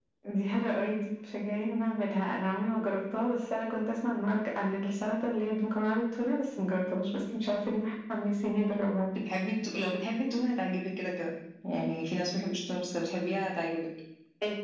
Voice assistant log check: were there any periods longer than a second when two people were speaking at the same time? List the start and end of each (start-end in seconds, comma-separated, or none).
none